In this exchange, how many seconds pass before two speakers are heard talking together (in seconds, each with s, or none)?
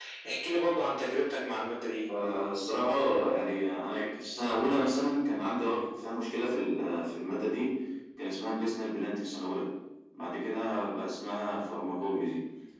none